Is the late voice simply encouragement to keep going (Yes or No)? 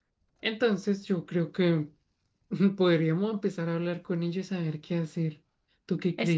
No